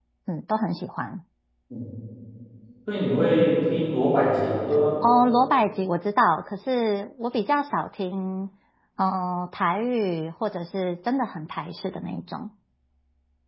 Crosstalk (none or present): none